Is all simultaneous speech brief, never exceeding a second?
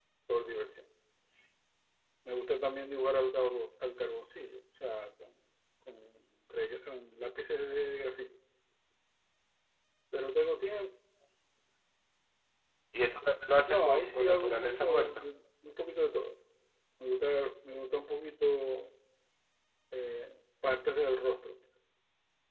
No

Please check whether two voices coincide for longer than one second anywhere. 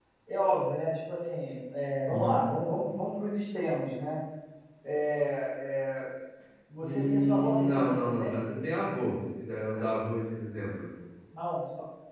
Yes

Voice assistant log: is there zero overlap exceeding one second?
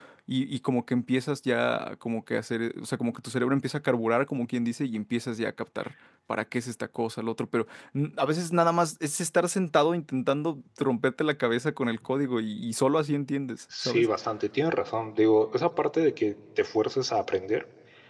Yes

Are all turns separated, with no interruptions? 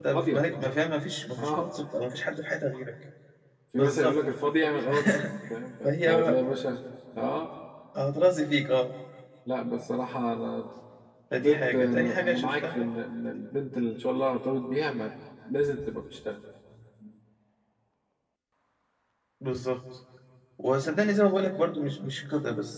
No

